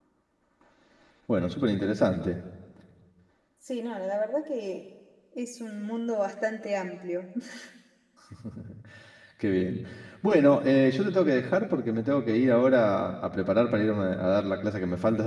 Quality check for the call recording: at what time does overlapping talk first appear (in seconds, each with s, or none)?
none